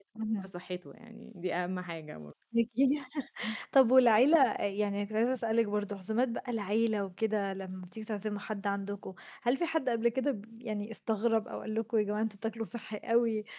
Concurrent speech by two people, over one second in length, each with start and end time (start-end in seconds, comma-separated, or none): none